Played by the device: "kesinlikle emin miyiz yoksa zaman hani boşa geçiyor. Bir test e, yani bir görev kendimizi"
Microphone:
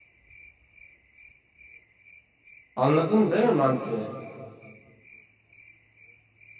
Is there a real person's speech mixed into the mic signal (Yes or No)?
Yes